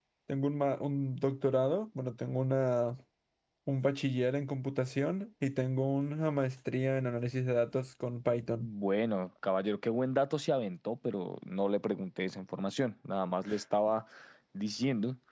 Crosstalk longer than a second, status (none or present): none